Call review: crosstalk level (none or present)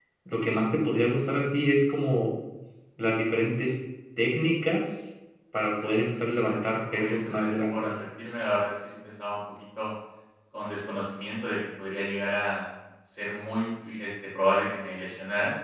present